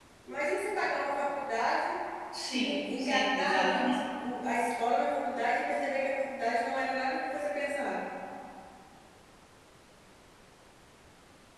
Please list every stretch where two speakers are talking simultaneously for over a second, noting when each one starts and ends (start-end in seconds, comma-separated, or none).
2.5-4.0